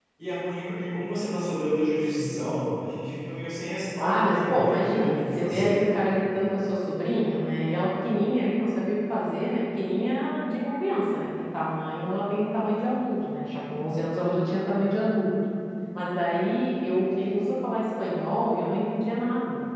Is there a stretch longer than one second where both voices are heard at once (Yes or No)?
Yes